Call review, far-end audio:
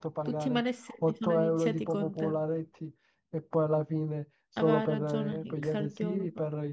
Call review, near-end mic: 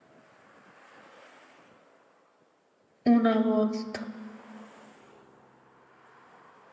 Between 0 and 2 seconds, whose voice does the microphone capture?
neither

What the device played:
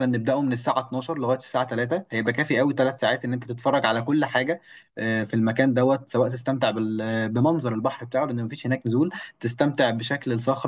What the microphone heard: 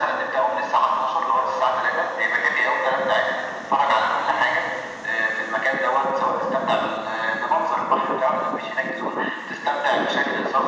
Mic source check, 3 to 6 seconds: echo only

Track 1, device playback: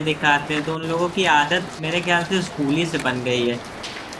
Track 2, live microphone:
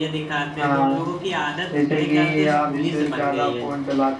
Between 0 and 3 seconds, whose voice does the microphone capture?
both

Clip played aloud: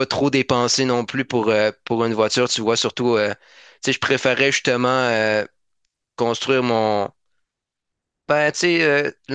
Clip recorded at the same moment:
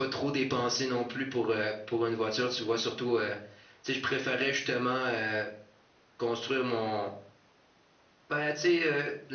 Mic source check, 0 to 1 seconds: echo only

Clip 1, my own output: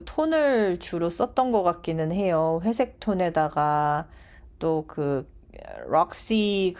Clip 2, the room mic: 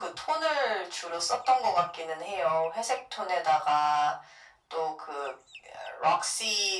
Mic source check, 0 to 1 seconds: echo only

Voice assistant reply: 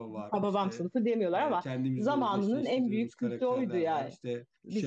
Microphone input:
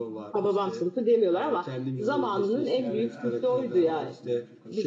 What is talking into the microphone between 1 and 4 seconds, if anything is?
both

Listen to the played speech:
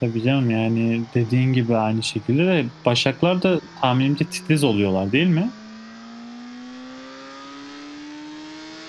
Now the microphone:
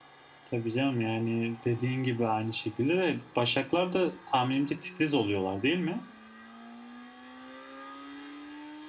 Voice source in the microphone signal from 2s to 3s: echo only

